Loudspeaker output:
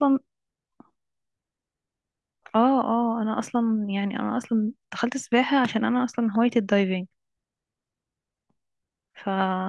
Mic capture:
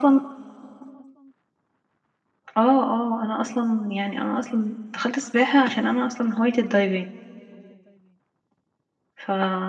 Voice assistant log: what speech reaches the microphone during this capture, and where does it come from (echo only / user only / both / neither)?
echo only